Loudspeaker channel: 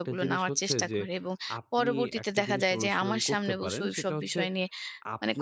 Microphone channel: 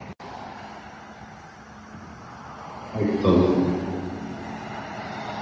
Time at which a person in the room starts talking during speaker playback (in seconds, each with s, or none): 3.0 s